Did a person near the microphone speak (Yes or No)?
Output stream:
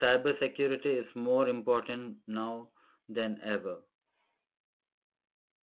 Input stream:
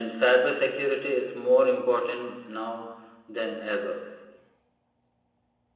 No